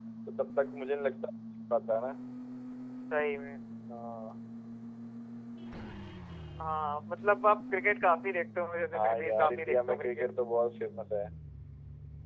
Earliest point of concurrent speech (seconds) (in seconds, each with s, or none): 8.9 s